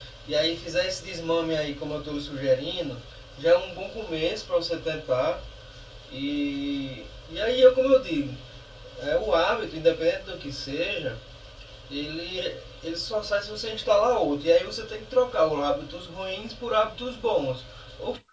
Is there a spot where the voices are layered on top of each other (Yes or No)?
No